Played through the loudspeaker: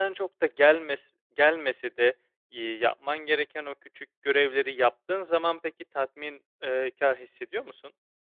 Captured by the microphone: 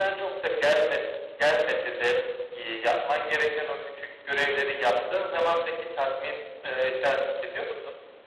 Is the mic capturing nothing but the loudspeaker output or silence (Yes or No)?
Yes